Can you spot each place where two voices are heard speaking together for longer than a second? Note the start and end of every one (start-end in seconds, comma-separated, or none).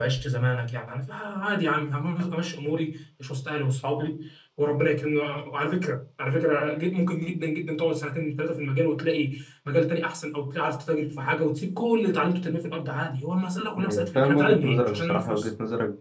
13.8-15.5